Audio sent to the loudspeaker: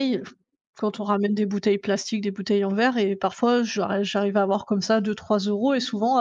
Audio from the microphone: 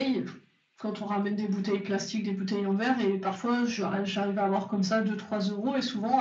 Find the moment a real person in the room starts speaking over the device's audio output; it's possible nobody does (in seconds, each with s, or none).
none